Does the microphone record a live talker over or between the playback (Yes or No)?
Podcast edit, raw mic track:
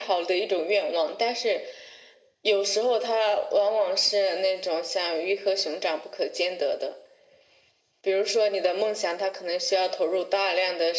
No